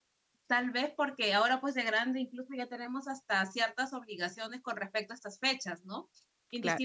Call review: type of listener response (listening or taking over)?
listening